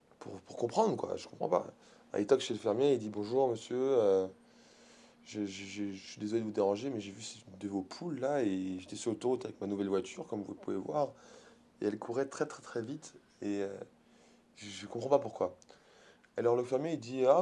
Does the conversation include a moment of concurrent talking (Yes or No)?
No